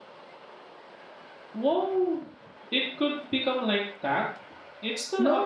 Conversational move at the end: taking over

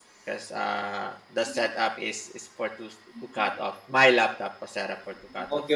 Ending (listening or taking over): taking over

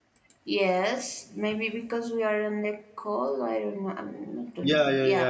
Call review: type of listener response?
taking over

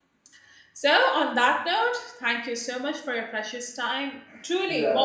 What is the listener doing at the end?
taking over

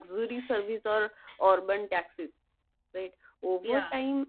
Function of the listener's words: listening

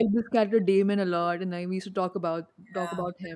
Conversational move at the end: taking over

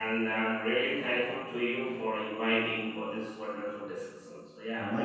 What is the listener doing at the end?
taking over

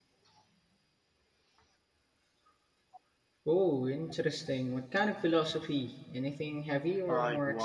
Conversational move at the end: taking over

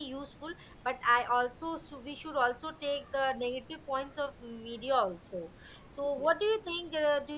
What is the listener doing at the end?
listening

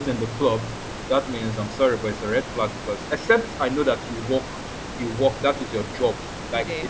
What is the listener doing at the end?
listening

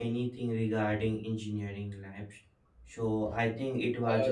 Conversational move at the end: taking over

